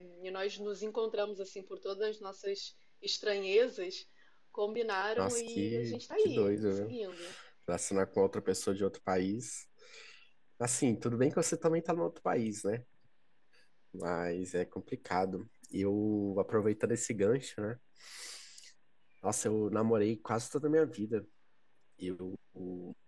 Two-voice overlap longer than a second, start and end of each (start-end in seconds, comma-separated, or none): 5.2-6.9